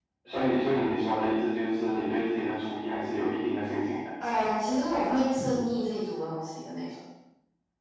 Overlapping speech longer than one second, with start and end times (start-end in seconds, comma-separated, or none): none